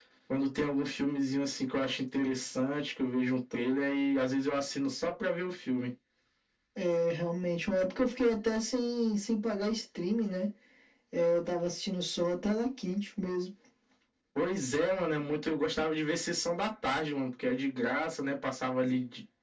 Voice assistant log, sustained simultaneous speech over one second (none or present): none